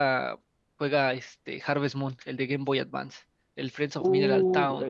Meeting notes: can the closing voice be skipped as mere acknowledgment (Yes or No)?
No